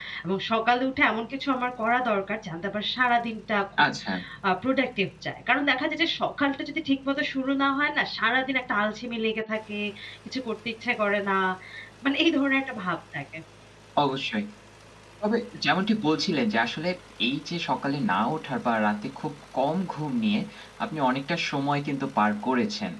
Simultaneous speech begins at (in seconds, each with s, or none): none